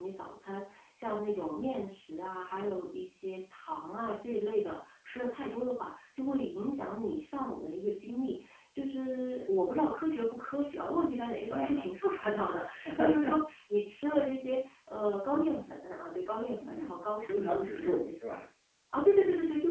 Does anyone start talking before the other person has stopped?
Yes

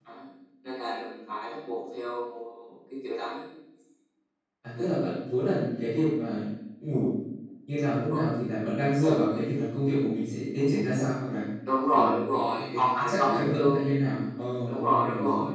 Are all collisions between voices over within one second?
No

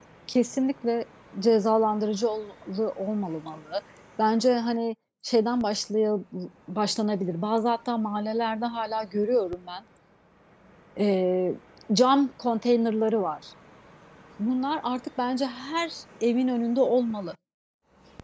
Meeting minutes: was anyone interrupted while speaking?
No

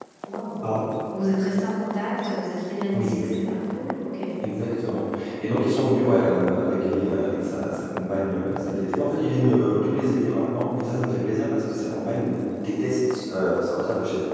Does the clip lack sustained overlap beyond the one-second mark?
Yes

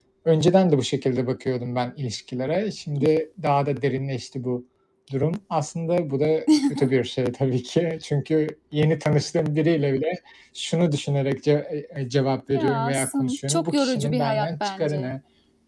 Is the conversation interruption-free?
No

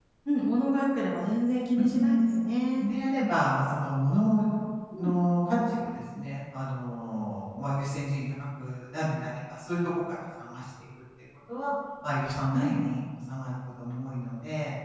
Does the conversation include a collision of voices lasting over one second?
No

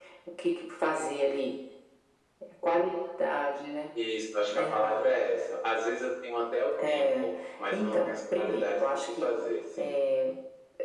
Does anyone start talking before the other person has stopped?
Yes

